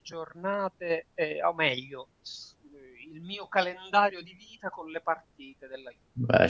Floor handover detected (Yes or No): Yes